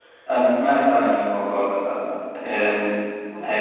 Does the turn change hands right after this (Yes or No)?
No